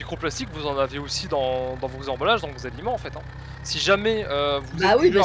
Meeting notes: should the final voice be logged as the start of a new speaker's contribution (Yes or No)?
Yes